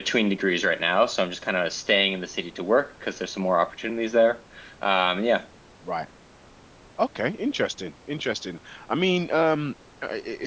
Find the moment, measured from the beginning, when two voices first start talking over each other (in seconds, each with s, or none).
none